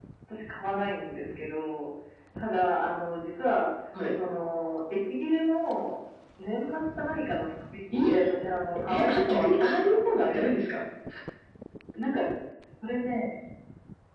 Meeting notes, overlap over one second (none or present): present